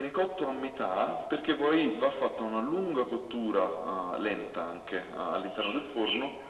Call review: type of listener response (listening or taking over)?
taking over